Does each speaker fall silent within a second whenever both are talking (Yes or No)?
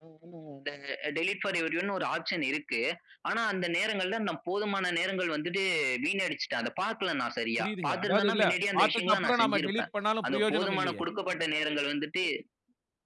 No